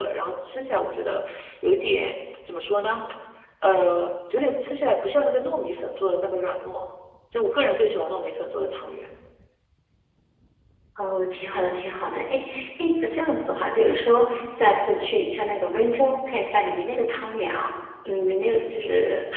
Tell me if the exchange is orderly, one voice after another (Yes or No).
Yes